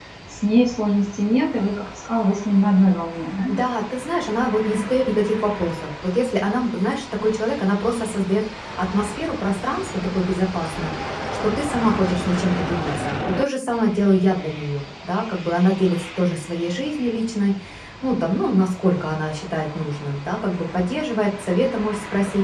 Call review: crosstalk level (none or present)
none